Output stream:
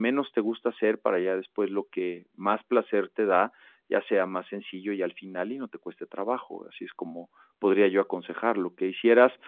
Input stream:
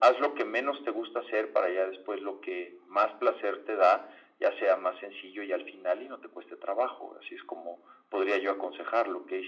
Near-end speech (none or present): none